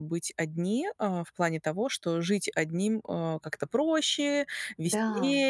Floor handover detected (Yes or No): No